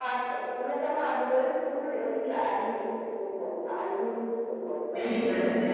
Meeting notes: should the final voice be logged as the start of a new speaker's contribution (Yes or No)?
Yes